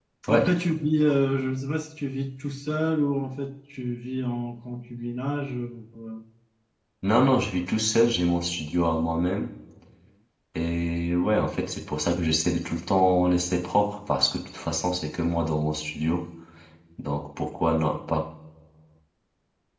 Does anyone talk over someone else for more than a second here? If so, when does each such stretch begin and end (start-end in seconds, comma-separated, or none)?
none